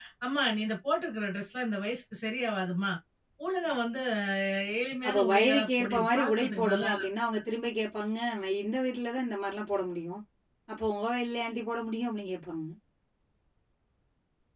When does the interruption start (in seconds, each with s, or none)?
5.0 s